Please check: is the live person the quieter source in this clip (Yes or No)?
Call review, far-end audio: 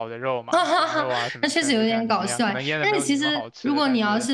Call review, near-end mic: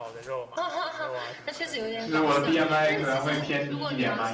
No